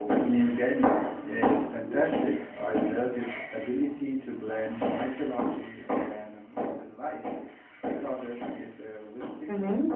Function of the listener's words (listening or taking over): taking over